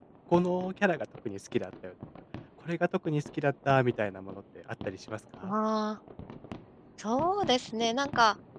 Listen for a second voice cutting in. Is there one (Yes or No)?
No